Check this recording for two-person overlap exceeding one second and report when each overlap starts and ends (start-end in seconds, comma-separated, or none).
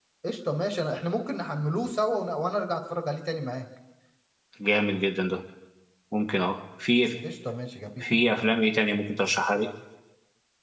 none